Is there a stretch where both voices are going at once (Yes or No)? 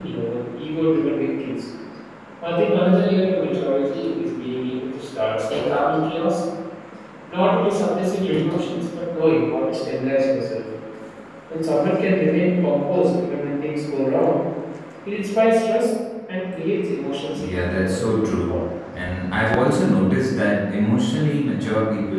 Yes